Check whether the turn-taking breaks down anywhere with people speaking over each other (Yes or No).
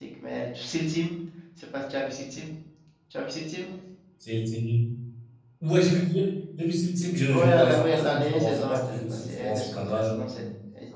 Yes